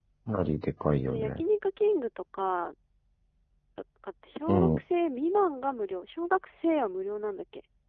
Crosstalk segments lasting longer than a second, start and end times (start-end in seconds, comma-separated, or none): none